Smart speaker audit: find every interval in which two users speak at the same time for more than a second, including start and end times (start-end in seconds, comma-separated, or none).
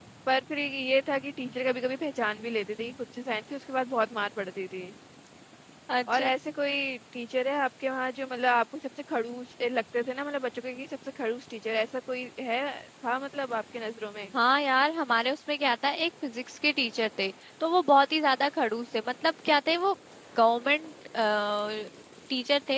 none